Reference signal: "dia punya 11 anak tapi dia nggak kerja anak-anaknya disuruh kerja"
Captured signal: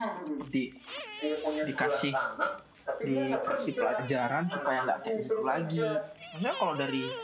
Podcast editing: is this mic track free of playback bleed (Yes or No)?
No